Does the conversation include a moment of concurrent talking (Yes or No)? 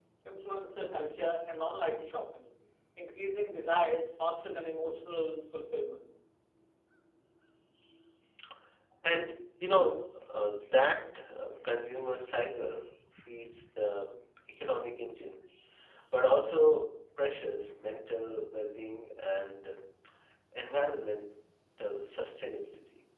No